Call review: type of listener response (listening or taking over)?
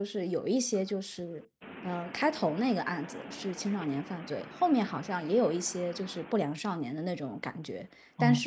listening